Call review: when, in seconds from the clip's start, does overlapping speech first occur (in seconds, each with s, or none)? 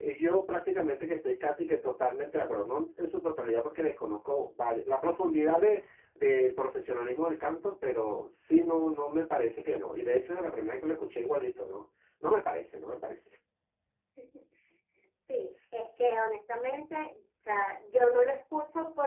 none